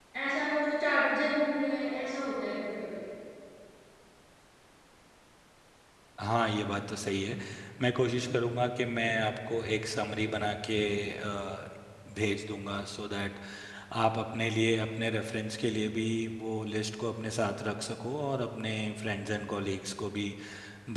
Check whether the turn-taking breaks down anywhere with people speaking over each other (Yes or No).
No